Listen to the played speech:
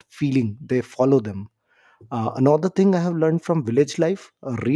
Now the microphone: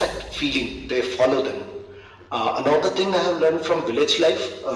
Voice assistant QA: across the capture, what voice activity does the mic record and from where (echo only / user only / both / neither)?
echo only